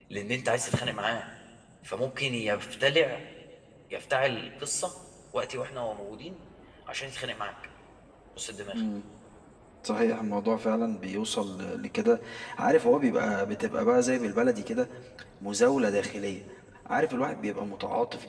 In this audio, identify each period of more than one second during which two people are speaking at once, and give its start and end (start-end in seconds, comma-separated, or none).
none